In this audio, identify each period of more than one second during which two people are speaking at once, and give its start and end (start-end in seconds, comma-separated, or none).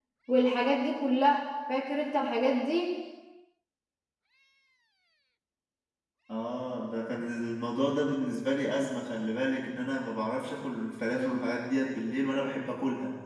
none